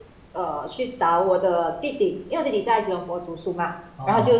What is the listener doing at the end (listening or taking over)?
listening